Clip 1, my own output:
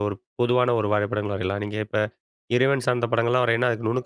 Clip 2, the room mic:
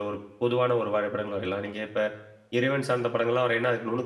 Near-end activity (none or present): none